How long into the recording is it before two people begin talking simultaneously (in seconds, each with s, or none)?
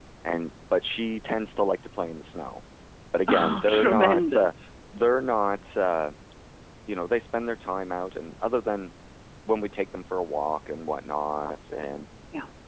3.3 s